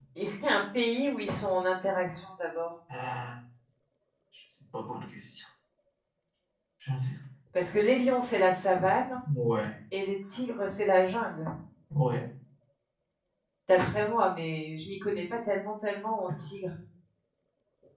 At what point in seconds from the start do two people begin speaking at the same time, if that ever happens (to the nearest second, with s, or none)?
none